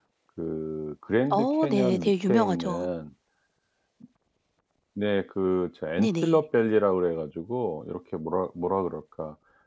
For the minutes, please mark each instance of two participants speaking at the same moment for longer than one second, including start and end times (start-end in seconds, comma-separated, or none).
1.3-2.9